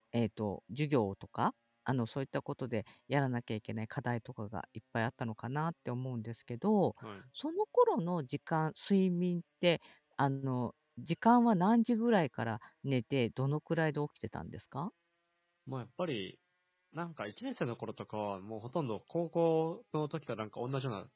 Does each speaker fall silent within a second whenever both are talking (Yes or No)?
Yes